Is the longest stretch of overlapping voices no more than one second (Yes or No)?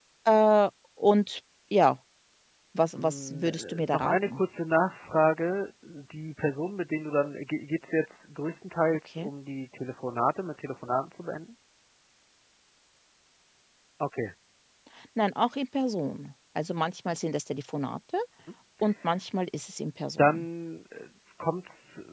No